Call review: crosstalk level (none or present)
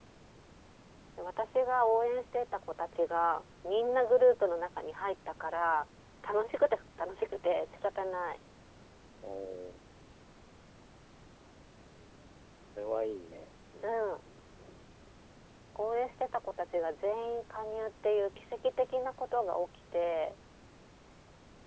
none